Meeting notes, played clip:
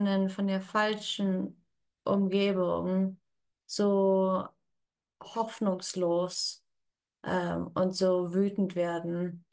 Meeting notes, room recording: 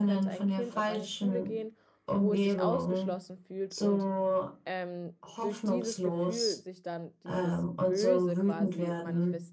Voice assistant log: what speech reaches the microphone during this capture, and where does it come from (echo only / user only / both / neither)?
both